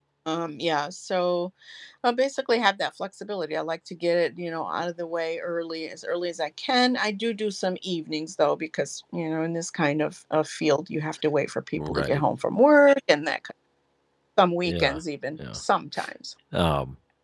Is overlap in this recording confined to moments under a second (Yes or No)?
Yes